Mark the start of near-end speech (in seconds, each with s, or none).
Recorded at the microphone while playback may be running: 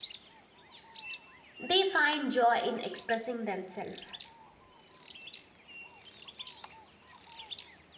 1.6 s